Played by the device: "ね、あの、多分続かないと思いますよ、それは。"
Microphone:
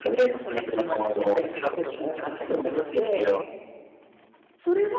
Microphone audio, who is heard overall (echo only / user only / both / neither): both